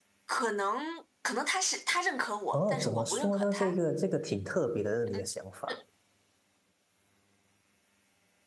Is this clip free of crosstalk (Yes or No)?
No